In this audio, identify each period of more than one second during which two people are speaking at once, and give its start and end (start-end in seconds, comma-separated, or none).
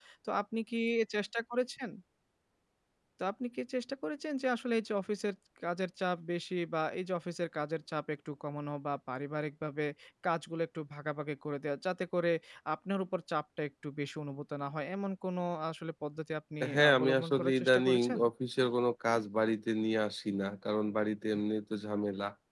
16.7-18.2